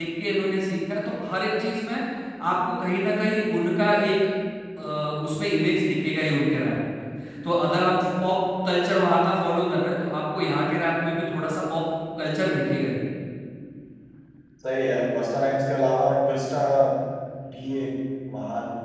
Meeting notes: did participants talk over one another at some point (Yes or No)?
No